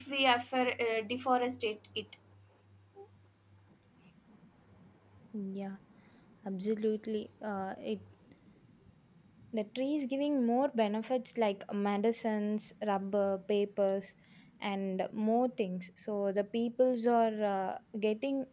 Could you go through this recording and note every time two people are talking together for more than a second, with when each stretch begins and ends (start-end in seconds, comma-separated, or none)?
none